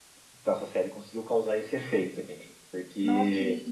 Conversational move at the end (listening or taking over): taking over